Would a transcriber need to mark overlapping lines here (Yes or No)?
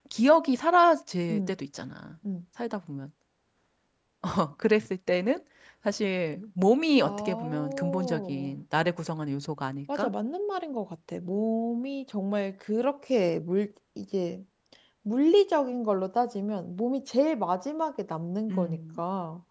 Yes